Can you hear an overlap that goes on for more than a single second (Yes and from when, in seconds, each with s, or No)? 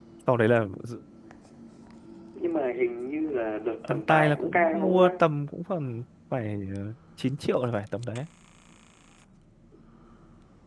Yes, from 3.9 s